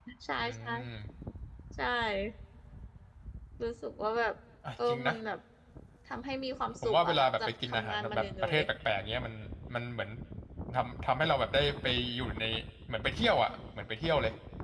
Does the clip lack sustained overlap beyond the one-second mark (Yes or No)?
No